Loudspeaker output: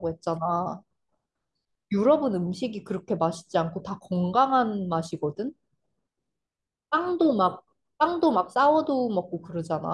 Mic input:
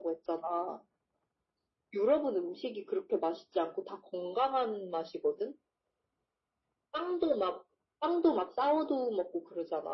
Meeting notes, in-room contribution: none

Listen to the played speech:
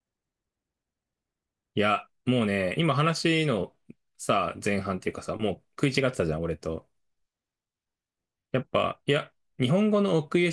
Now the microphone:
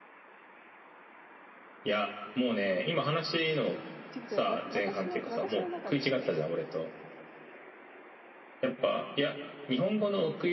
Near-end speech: present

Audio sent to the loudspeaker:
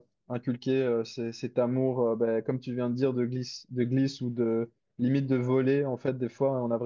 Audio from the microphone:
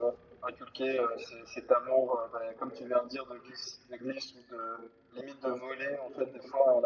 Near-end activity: none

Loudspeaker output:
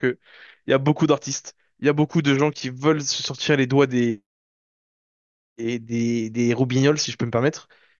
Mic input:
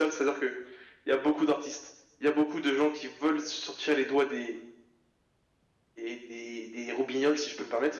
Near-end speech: none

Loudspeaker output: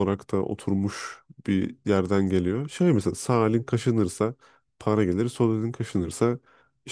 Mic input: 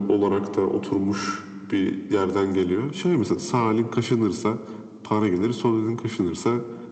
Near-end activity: none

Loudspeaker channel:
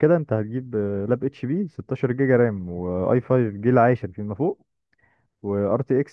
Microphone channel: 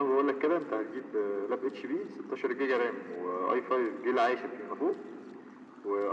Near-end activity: none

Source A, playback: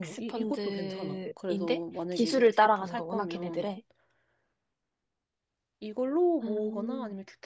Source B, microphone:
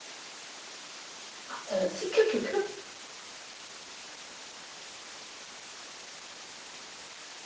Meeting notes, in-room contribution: present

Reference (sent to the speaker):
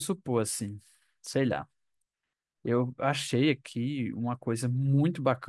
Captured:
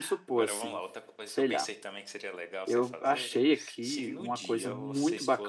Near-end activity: present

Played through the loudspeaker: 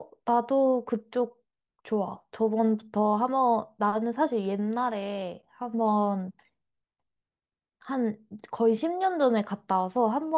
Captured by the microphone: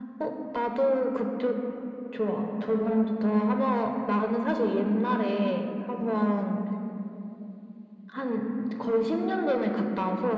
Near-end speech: none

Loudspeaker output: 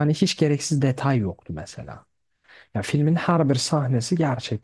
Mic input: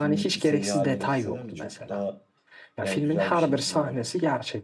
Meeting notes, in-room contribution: present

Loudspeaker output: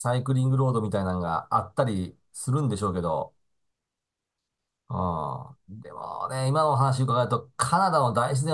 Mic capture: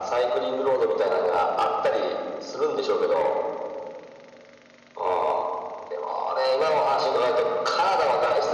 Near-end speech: none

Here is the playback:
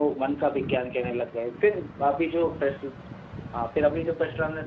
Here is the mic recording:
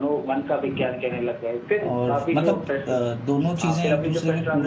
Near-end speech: present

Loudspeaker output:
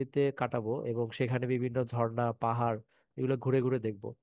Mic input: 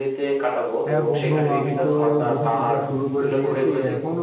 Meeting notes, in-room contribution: present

